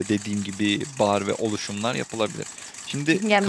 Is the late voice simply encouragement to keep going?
No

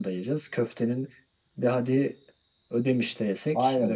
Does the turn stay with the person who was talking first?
No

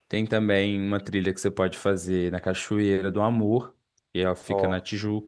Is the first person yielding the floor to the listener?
No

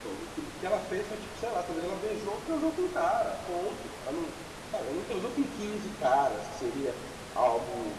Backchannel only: Yes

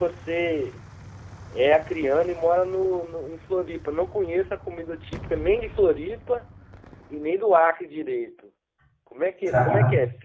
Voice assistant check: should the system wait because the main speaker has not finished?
Yes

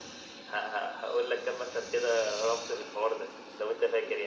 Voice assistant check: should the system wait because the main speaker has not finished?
No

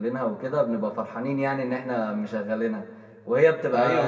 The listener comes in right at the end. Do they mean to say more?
Yes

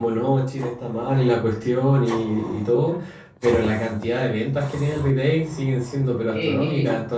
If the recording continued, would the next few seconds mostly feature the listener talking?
No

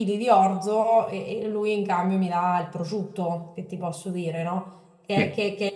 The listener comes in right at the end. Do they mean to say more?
No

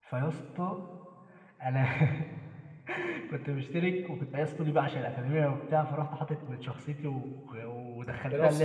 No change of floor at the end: Yes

